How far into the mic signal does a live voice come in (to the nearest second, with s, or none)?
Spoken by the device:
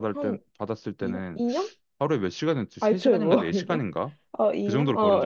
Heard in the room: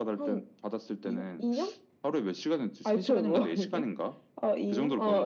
none